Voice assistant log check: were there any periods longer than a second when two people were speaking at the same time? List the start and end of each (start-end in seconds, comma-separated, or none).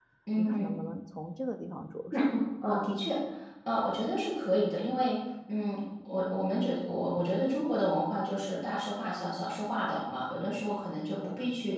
none